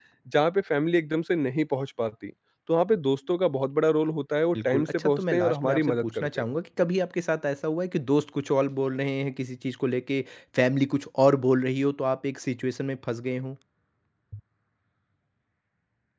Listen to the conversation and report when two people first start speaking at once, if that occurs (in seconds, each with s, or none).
4.5 s